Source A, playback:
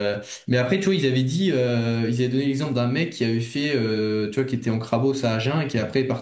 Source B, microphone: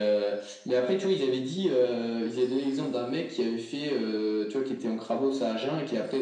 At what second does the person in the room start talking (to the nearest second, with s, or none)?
none